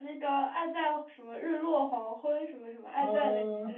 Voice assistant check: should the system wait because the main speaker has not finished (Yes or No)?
No